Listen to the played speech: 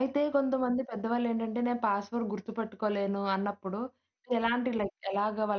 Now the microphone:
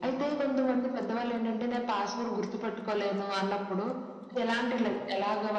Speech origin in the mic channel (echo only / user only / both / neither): echo only